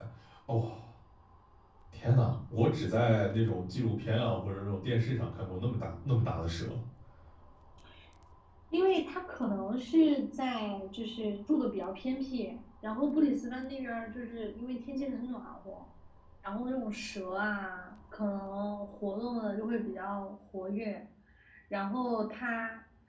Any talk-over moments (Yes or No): No